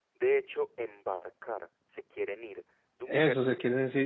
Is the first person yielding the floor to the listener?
Yes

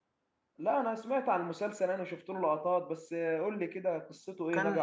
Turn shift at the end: Yes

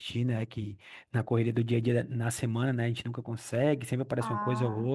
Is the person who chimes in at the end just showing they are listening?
Yes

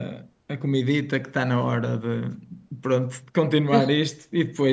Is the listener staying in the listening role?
Yes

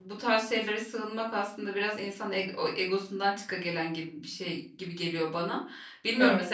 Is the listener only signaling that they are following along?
Yes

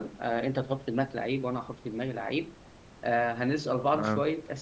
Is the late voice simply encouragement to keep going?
Yes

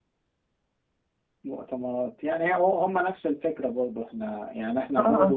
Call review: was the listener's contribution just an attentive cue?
Yes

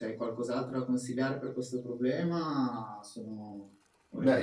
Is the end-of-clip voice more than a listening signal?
Yes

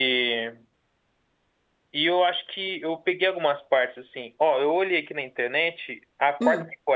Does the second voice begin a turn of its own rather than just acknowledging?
No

